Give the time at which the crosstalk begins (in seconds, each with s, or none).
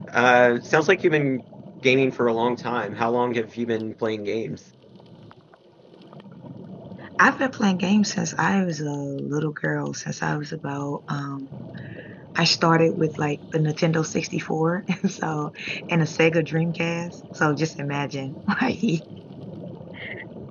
none